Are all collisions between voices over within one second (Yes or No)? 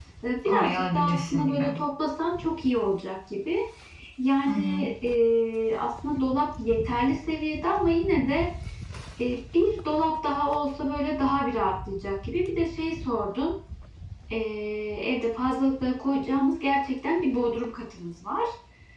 No